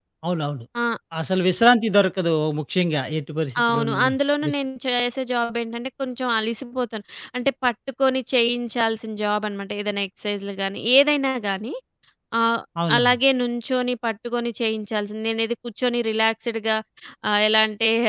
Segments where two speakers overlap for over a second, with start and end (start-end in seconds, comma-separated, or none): none